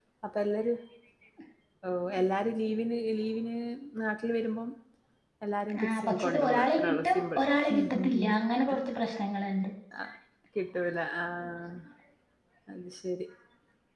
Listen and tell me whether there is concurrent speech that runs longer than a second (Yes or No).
Yes